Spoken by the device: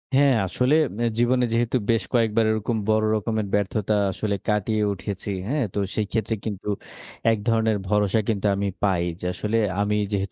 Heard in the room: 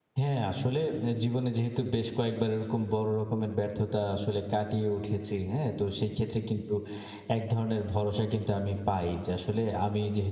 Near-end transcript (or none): none